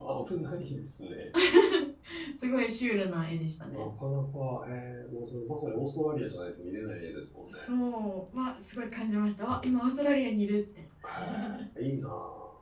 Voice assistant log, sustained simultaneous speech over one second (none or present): none